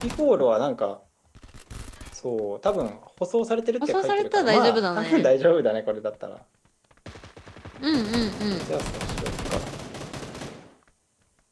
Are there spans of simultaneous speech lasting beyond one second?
Yes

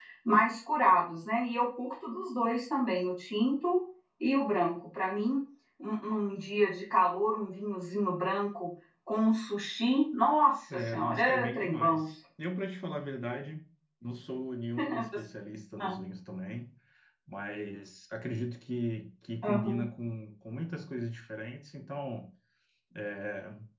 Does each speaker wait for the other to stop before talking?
No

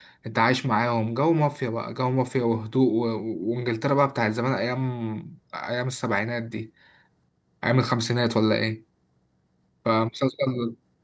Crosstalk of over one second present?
No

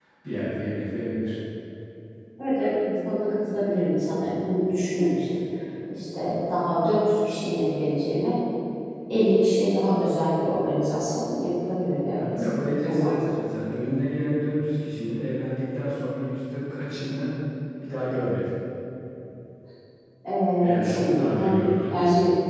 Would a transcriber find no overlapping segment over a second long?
No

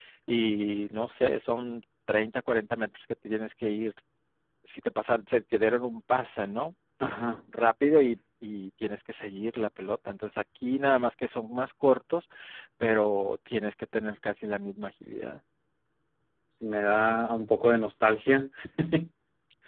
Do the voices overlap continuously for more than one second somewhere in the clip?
No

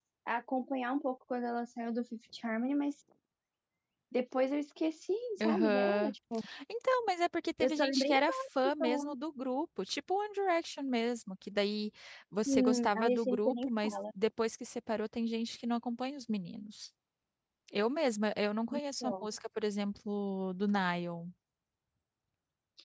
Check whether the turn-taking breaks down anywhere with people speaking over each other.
Yes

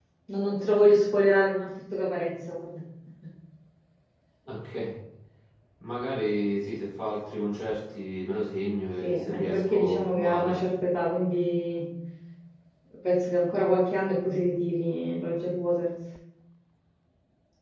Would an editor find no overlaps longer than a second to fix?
No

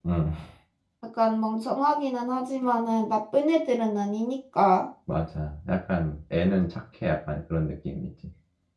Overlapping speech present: No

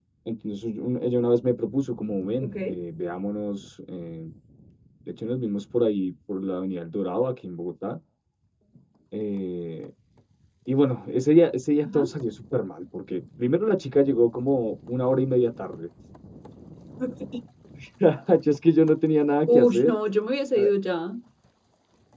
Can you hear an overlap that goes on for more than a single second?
No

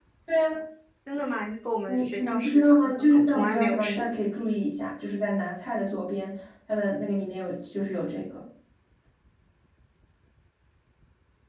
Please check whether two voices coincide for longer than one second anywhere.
Yes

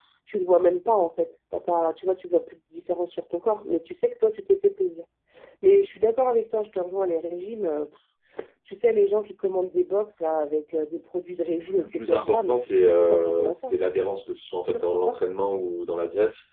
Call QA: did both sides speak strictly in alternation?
No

